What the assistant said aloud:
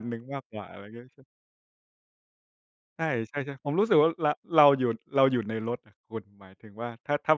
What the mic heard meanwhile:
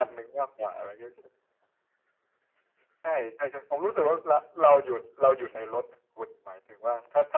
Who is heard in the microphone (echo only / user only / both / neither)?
echo only